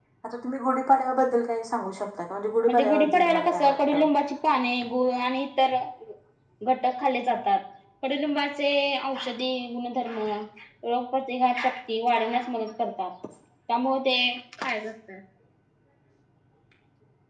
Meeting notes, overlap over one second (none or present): present